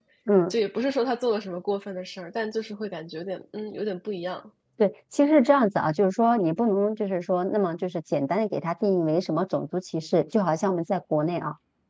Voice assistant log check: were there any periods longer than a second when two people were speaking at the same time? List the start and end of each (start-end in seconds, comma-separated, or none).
none